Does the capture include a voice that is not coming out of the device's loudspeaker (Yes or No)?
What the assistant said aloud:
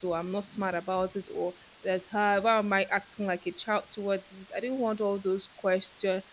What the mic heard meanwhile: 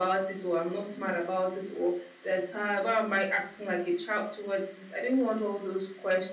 No